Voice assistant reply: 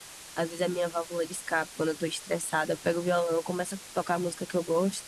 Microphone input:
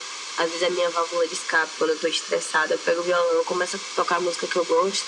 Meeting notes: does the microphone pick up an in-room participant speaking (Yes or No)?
No